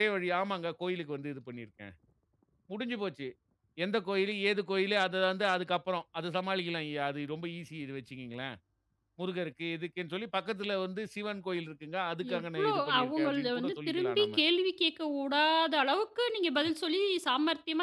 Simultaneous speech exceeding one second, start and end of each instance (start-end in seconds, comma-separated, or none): 12.3-14.3